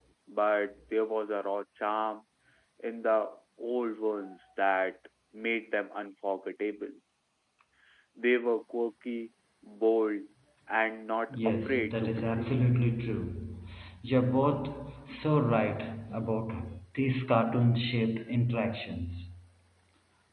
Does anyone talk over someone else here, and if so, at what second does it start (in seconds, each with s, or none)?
11.3 s